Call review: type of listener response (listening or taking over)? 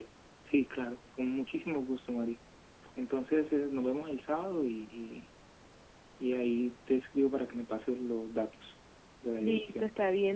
taking over